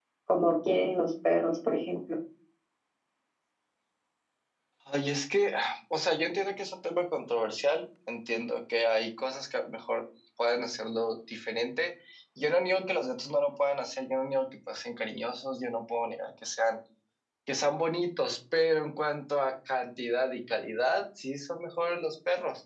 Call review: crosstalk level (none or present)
none